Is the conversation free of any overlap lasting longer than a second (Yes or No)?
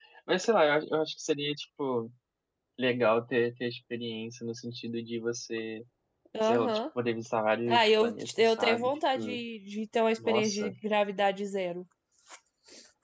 No